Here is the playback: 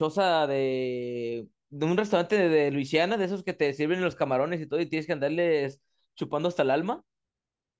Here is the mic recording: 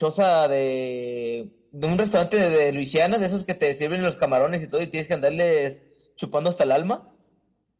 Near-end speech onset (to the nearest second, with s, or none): none